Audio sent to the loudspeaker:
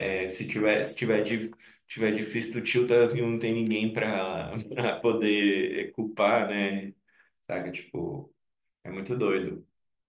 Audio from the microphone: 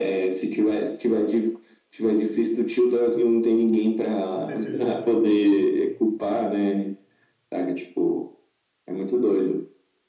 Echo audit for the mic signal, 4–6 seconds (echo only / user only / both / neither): both